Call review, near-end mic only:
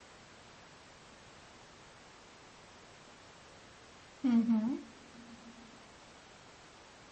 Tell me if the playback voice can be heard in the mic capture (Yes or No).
No